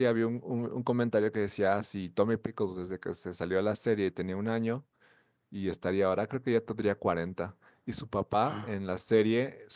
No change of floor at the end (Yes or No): Yes